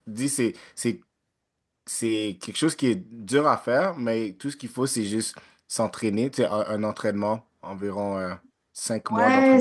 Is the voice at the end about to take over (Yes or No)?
Yes